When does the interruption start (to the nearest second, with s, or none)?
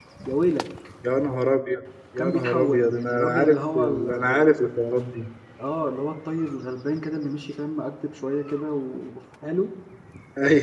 2 s